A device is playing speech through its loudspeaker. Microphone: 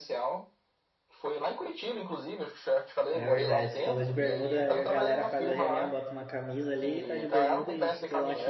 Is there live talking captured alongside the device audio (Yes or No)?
Yes